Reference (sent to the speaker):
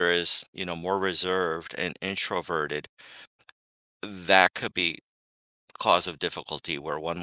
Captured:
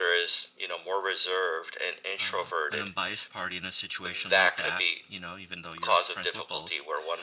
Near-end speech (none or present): present